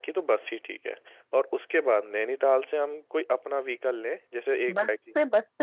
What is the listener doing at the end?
taking over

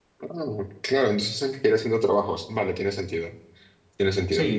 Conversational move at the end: taking over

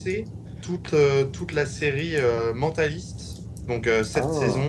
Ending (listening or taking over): listening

